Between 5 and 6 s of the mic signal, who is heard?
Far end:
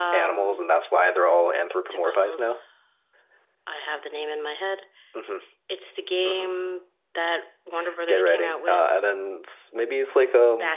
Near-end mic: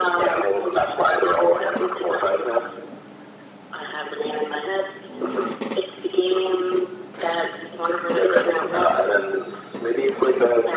echo only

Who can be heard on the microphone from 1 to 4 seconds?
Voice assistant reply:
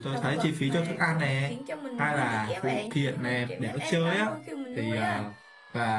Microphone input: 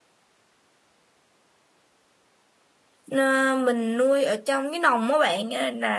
user only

